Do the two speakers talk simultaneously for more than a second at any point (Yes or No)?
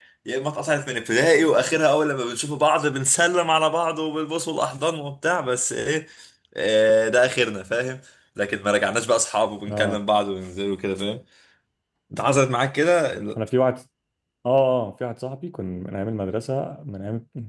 No